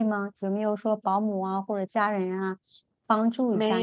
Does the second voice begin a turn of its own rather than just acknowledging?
Yes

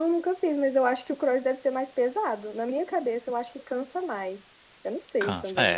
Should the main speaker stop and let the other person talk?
Yes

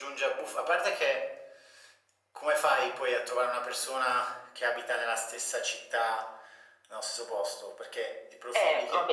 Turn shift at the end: Yes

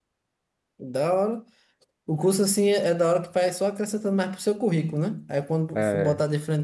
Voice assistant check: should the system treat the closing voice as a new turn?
No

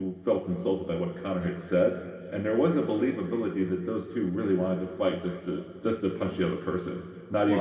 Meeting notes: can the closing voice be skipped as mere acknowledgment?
No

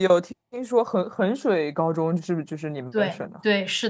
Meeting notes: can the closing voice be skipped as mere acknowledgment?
No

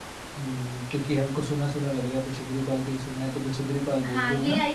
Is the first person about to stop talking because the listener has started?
Yes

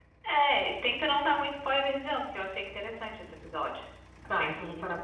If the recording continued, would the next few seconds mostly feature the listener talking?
Yes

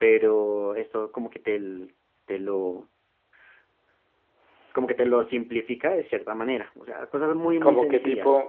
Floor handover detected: Yes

